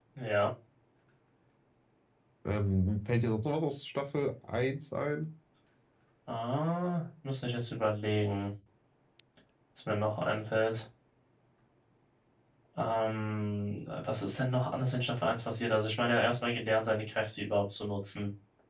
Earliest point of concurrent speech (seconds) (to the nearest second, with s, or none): none